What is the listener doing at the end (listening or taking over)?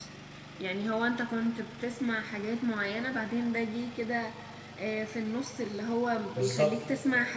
listening